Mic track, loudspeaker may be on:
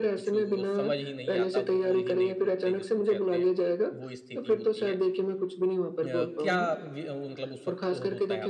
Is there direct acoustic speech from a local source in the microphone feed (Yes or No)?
Yes